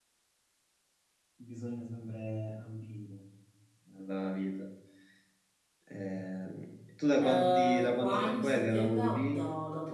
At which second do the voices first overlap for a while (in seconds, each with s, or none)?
7.2 s